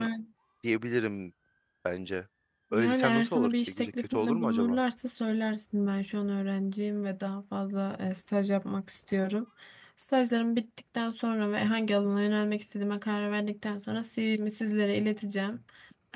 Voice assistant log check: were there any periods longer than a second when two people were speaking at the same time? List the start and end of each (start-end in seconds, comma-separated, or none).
2.7-4.8